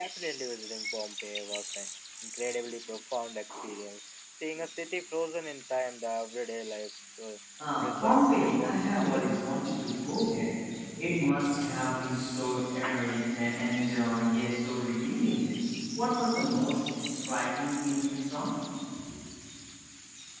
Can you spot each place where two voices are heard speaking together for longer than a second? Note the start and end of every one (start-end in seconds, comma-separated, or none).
7.8-9.4